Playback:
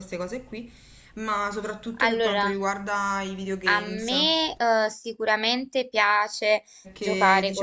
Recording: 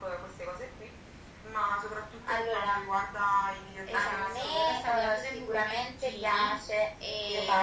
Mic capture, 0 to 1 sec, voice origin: echo only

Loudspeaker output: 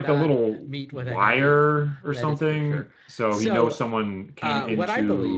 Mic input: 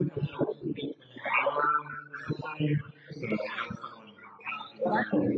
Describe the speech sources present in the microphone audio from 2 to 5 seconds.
echo only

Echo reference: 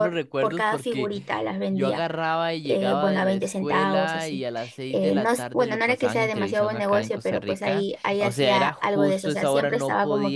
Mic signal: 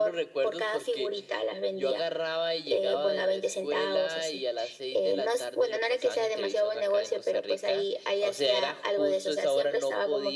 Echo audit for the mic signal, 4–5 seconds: echo only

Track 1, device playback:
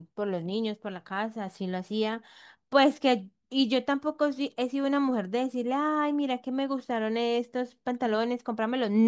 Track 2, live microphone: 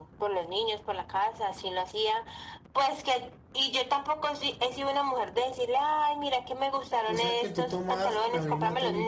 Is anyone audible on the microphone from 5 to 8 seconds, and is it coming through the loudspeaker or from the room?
both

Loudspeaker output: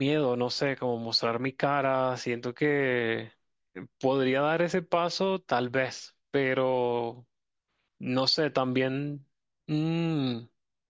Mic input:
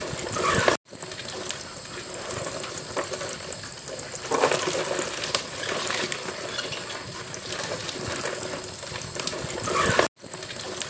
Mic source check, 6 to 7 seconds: neither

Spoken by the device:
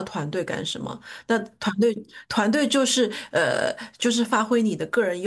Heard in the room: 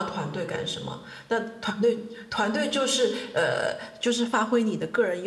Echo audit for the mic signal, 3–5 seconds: echo only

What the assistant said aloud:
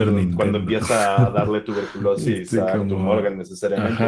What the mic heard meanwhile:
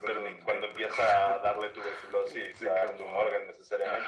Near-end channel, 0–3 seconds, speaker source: echo only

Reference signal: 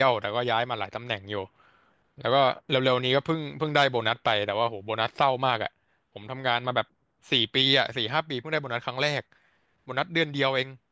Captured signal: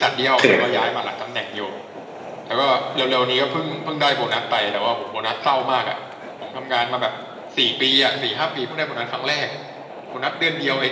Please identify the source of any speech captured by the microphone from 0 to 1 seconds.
both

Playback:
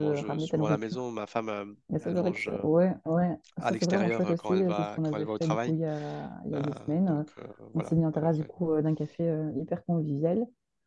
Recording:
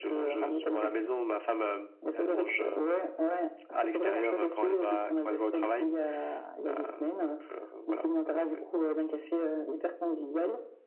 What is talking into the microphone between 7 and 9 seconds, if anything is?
echo only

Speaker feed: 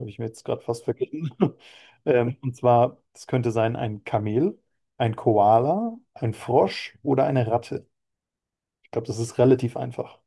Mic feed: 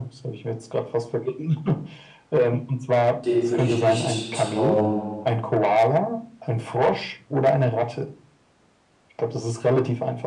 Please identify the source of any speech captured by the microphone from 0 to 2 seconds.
echo only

